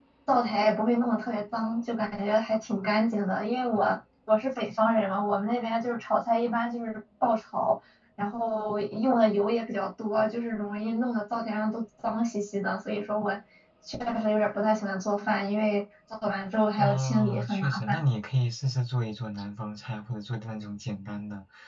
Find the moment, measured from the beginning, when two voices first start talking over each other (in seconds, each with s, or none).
16.8 s